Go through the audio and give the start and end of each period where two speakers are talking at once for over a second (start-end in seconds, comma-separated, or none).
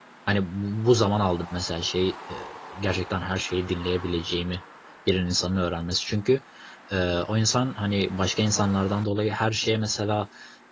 none